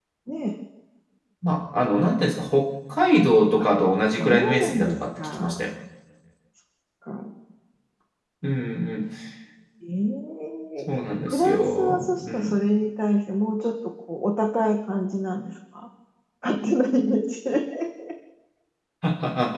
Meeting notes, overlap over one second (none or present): present